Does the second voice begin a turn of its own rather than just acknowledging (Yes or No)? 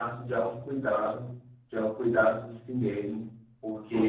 No